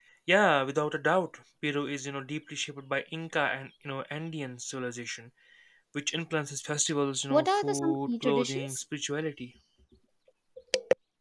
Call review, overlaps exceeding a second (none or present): present